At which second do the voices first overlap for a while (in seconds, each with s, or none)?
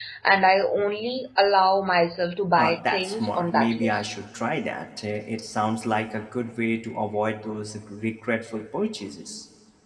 2.6 s